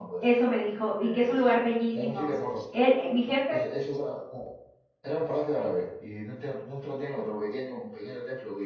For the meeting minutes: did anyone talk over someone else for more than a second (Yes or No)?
No